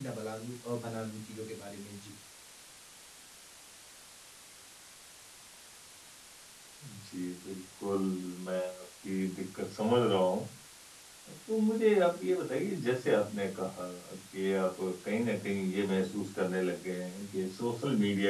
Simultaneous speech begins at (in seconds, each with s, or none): none